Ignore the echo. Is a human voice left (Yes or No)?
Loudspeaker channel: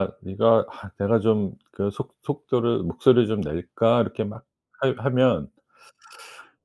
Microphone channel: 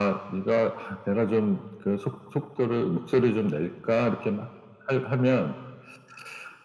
No